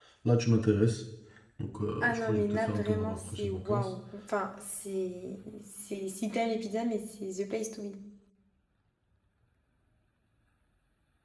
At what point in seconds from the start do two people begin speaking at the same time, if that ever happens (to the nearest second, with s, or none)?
2 s